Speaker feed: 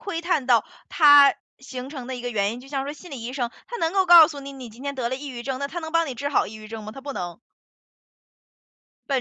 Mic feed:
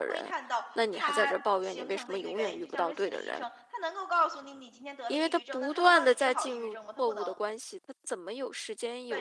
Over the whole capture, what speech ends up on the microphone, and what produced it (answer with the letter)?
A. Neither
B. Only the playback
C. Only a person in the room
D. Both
D